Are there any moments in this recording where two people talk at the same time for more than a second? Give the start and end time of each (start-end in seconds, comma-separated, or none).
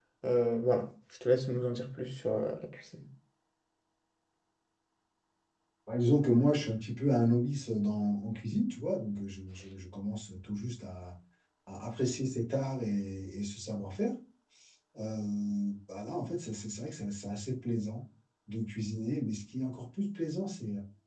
none